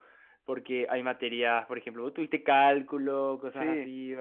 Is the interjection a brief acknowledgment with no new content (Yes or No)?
Yes